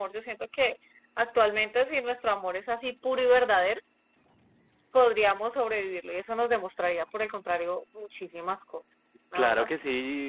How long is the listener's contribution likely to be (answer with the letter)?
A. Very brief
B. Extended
B